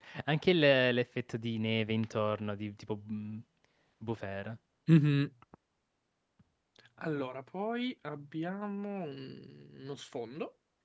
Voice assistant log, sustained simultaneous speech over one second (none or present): none